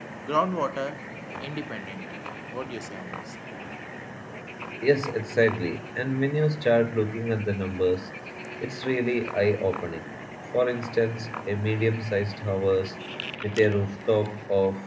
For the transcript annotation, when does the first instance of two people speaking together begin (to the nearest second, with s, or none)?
none